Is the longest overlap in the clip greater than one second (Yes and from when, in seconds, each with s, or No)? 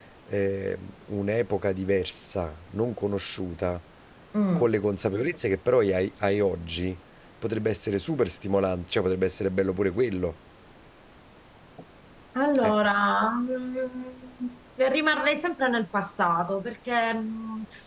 No